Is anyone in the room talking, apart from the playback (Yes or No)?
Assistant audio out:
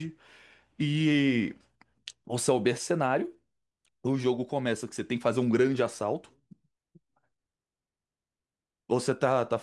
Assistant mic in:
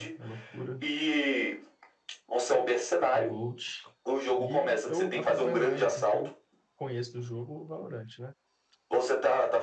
Yes